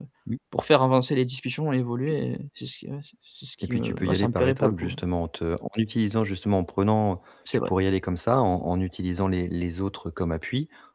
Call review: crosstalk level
present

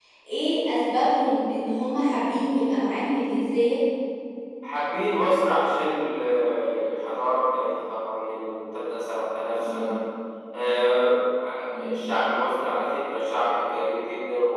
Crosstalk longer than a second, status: none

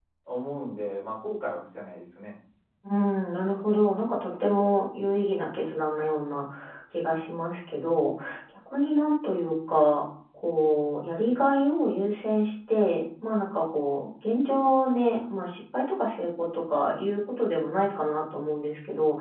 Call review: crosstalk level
none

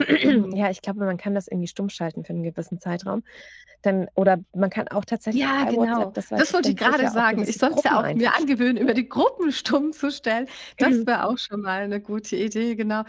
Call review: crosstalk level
present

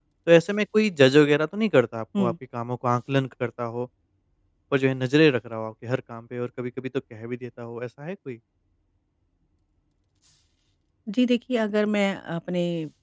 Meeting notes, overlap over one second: none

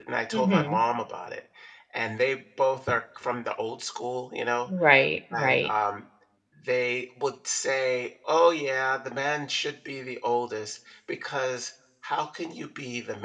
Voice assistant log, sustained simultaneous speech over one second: none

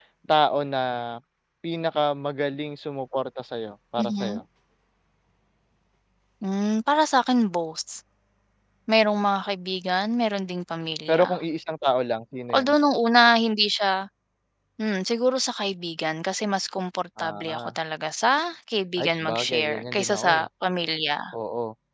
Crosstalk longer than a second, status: present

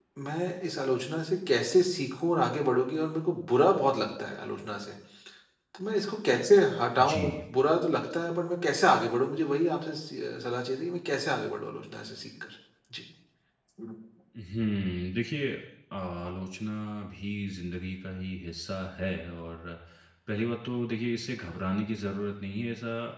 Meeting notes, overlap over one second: none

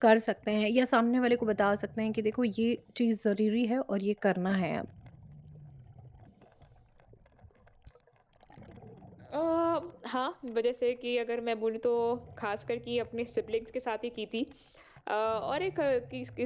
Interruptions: none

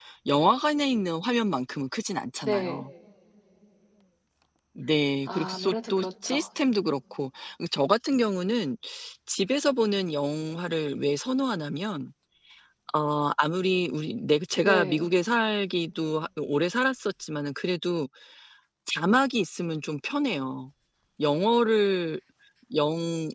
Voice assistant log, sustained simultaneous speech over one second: present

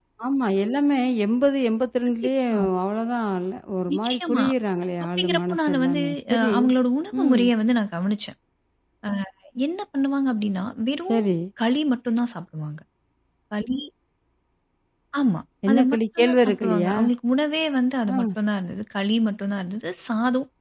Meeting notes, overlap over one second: present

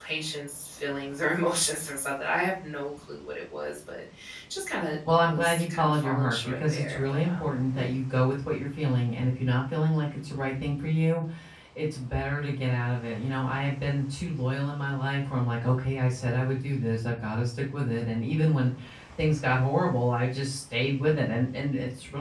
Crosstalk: present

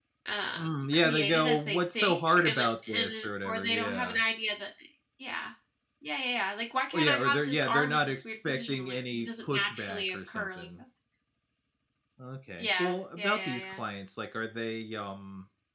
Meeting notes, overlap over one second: present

